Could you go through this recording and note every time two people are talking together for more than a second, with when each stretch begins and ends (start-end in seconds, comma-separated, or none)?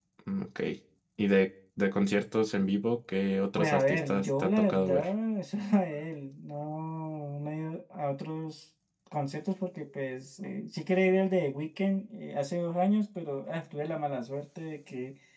3.5-5.1